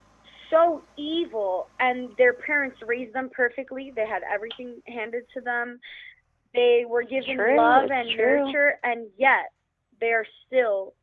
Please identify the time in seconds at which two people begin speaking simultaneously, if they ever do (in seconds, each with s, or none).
7.2 s